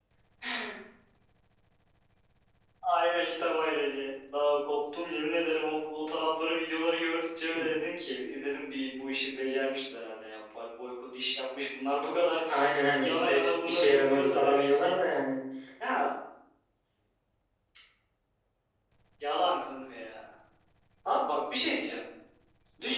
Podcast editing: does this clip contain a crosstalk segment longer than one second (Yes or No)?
Yes